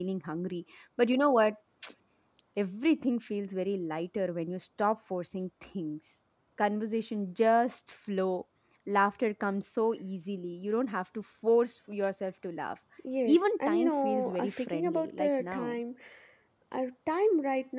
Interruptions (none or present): present